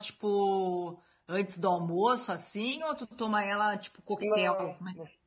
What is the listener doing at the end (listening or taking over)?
taking over